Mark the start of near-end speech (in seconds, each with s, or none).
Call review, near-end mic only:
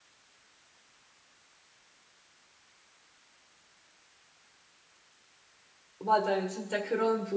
6.0 s